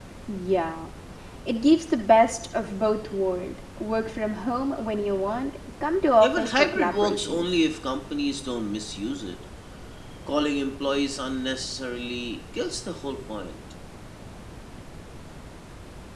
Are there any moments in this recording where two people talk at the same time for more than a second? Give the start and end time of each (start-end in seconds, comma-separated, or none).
6.2-7.5